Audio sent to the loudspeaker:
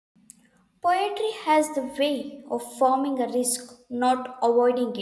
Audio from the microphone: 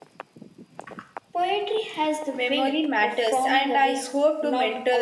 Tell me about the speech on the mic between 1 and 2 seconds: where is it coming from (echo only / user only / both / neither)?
echo only